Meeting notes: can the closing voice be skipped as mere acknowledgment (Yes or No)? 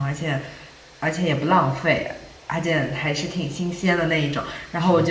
Yes